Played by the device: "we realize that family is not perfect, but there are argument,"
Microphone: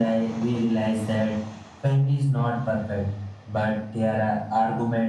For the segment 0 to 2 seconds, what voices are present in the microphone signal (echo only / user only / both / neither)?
echo only